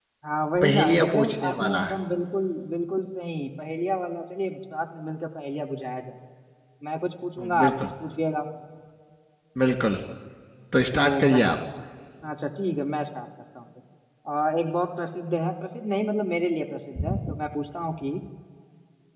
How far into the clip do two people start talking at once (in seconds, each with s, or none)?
0.6 s